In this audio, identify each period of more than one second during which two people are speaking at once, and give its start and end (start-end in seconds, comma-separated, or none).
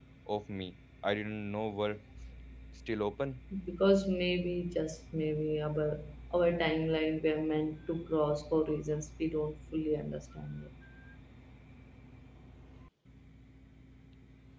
none